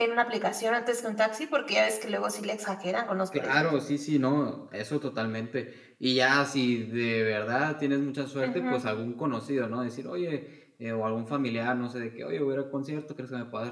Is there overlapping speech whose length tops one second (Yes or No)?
No